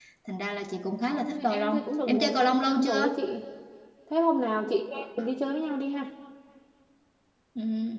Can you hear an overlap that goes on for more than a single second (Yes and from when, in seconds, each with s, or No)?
Yes, from 1.1 s